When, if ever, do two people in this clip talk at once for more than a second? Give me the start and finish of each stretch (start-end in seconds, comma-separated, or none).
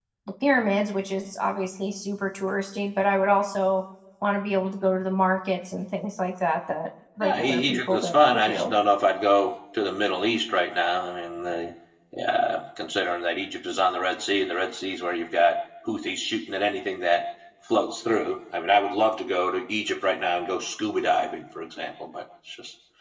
7.2-8.7